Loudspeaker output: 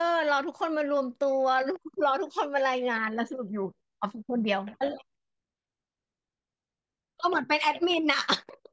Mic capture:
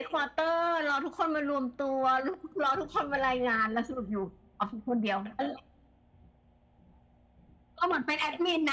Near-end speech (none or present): none